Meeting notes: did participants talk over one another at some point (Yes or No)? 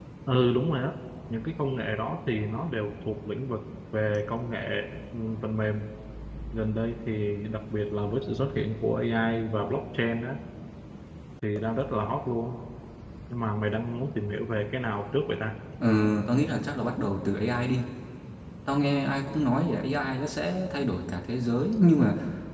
No